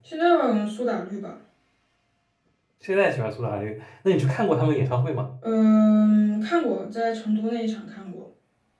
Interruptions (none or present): none